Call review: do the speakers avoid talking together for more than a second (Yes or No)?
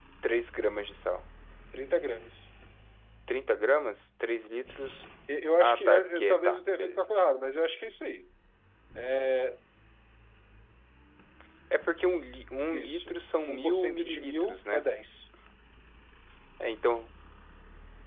No